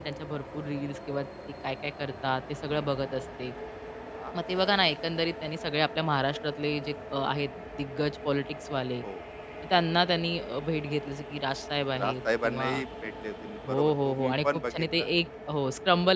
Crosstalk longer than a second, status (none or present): present